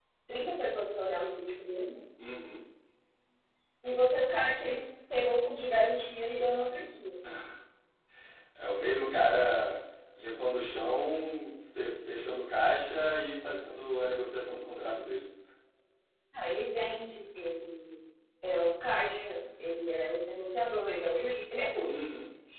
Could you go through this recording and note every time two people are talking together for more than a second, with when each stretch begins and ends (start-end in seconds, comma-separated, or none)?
none